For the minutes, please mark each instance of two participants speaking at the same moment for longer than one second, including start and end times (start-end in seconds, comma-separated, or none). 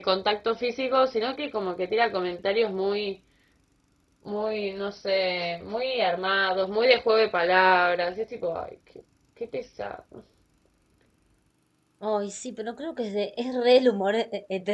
none